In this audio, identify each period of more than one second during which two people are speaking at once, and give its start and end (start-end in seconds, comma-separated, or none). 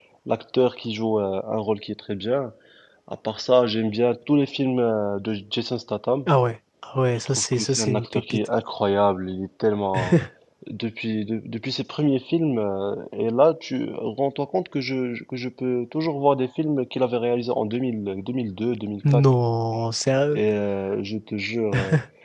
7.3-8.5